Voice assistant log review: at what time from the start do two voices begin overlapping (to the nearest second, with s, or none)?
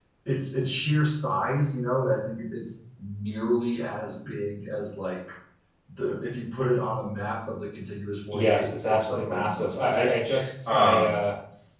8 s